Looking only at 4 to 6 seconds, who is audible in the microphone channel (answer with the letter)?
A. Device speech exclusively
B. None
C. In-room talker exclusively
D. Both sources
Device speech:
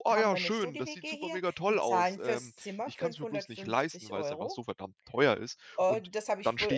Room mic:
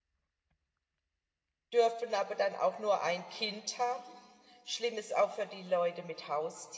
C